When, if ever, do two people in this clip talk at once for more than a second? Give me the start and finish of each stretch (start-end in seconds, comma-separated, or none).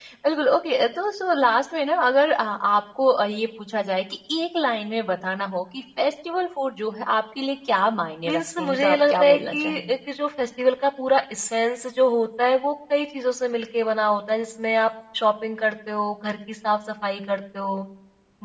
8.2-9.9